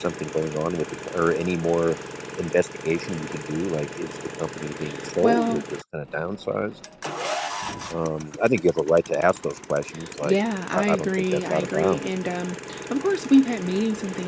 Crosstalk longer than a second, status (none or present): present